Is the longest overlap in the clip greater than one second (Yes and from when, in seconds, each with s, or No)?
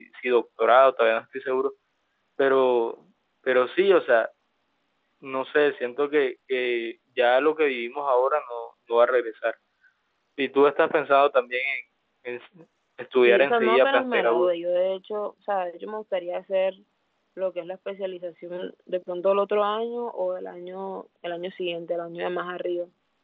Yes, from 13.2 s